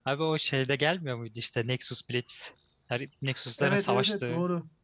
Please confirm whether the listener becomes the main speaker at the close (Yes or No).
Yes